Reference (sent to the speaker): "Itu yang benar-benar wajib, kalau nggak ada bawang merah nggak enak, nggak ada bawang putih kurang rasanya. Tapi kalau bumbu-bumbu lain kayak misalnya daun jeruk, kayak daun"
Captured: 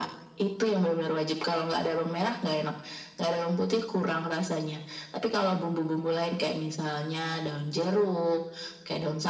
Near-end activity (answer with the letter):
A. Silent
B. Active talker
A